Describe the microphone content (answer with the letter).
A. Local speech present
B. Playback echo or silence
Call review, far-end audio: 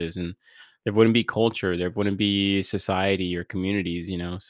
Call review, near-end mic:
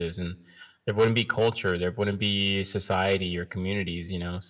B